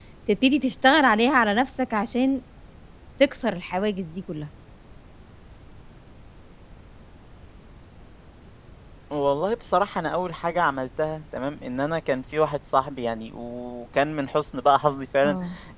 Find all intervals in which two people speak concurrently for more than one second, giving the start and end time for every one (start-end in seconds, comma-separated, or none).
none